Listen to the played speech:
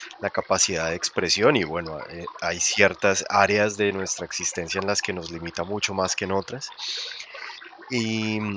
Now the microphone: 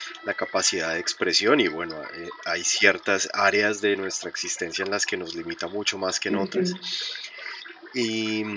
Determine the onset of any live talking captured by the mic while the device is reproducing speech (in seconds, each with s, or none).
6.3 s